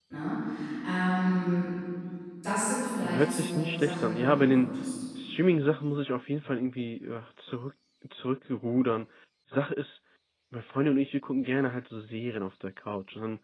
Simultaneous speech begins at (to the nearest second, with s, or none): 3 s